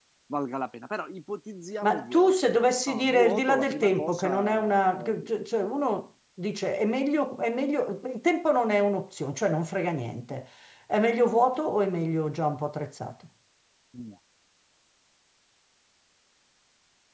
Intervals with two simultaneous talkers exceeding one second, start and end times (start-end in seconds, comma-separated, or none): 1.8-5.3